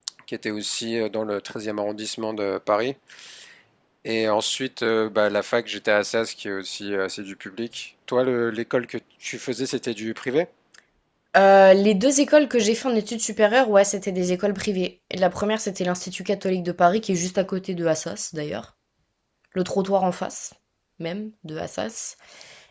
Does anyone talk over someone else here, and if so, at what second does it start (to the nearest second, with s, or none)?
none